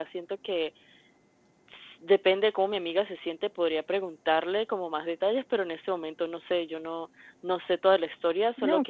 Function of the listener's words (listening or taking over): listening